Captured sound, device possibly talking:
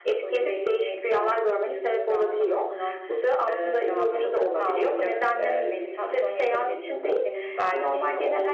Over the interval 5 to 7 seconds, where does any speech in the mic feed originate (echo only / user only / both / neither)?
both